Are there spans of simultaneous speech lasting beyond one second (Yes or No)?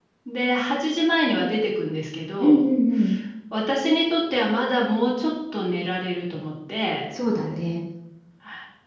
No